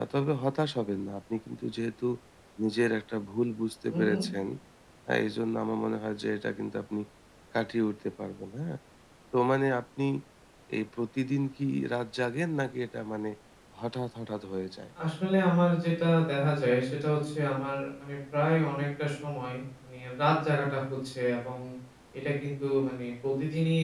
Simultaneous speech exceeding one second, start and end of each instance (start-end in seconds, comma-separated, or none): none